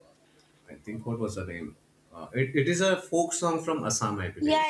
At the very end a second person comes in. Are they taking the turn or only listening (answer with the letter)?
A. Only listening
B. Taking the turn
B